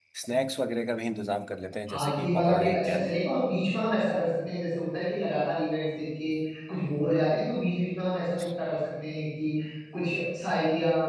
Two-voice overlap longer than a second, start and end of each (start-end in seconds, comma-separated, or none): 1.9-3.2